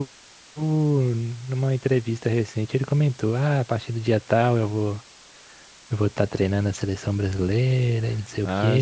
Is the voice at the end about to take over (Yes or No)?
Yes